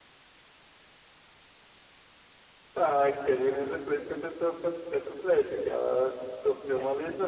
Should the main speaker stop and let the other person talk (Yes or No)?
Yes